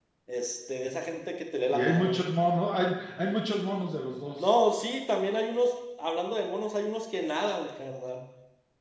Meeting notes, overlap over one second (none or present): none